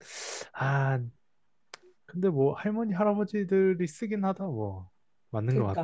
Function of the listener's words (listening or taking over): taking over